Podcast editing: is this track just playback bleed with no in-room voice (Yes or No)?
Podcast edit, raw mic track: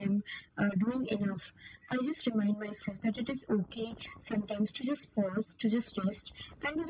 Yes